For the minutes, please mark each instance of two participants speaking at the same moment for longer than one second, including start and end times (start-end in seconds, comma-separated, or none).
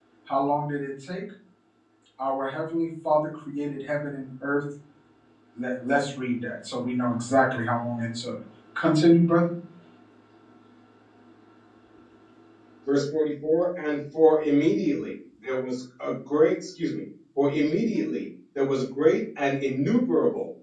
none